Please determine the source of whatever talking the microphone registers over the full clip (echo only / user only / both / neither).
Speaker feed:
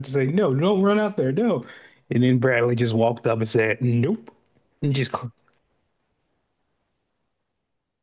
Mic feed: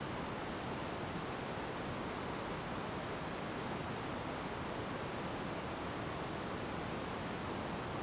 neither